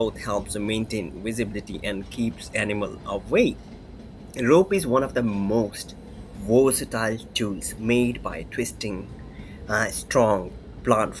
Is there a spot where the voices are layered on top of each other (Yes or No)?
No